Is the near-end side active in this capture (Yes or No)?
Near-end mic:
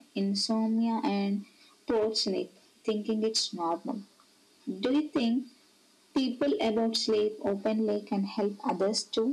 No